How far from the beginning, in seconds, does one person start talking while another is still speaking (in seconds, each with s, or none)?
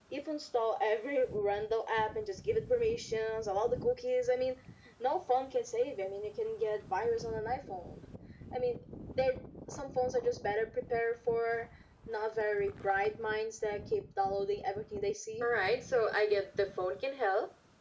none